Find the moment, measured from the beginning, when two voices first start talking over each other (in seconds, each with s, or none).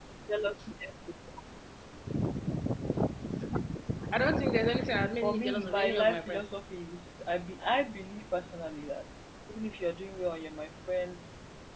5.2 s